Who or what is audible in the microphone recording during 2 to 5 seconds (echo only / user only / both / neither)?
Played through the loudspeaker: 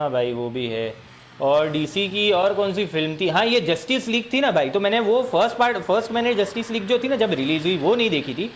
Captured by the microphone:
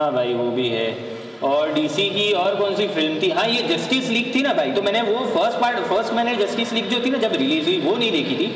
echo only